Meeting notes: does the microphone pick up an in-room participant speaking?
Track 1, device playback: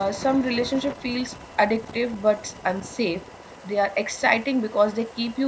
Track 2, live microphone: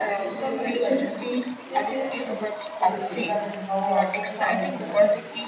Yes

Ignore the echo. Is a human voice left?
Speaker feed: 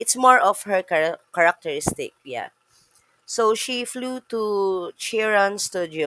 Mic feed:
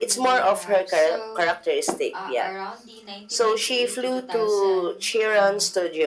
Yes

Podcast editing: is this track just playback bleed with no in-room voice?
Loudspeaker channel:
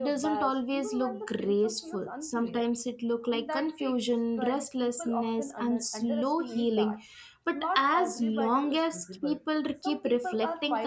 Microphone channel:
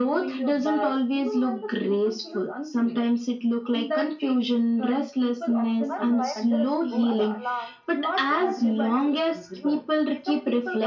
No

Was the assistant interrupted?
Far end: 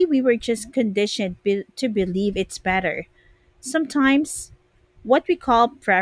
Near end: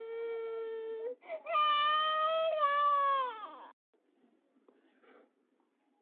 No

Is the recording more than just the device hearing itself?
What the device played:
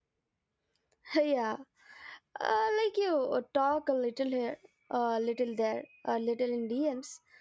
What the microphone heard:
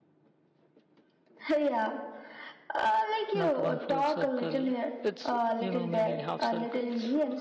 Yes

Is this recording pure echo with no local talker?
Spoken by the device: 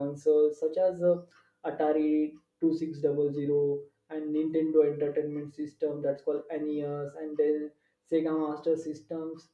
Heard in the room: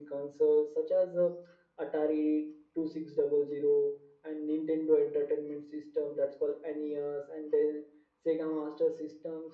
Yes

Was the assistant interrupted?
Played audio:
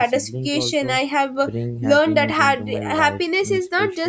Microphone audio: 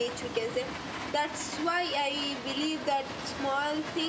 Yes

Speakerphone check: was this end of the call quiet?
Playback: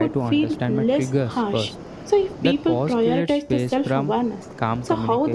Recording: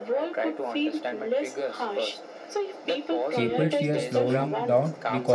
No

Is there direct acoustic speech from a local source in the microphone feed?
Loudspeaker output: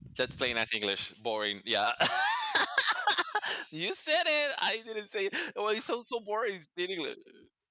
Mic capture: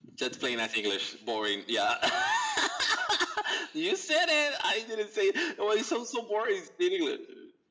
No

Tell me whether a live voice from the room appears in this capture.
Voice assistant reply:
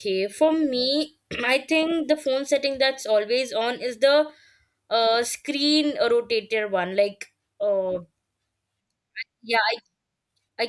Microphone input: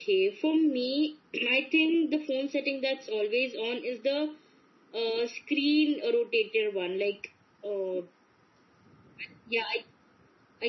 No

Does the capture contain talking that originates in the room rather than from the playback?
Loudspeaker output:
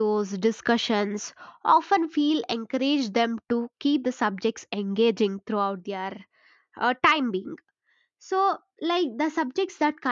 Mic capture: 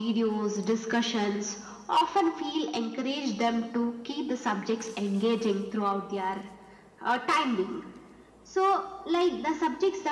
No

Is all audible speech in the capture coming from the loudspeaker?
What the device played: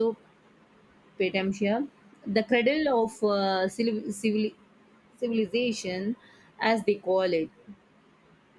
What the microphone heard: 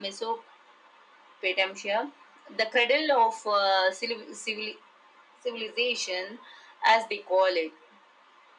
Yes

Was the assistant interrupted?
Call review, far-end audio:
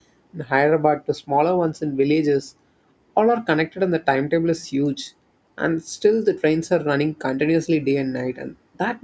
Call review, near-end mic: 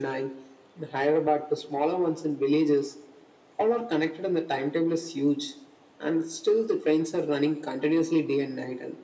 No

